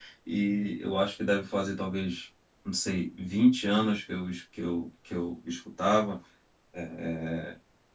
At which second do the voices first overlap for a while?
none

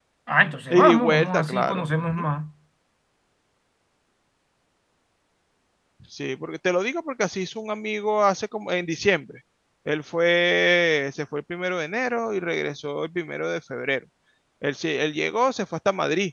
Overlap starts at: 1 s

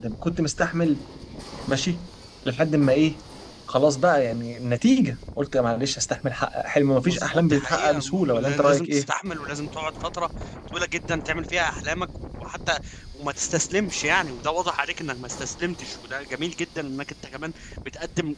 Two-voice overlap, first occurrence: 7 s

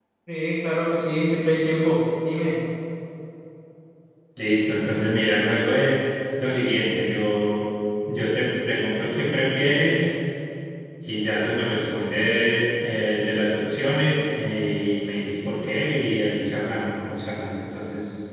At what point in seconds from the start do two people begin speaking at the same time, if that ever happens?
none

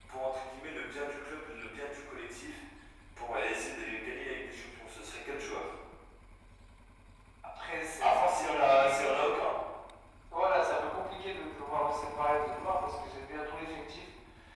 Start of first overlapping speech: 8 s

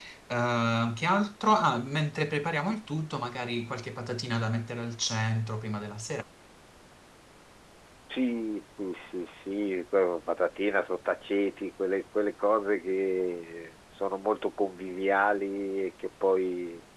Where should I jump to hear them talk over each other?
none

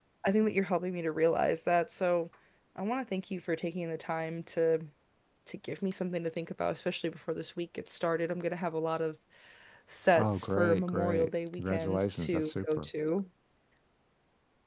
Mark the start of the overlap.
10 s

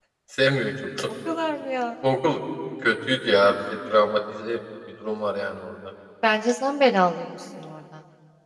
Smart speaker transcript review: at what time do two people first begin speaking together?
none

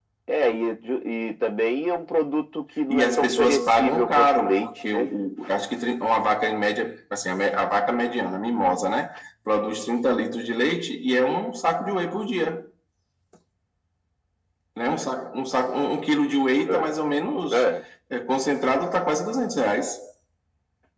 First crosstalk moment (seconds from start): 3 s

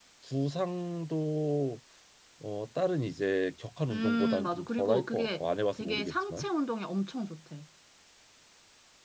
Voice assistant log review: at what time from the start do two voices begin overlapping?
4 s

